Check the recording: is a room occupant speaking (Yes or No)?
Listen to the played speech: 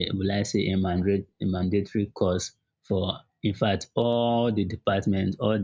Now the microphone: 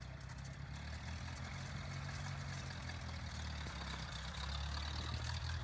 No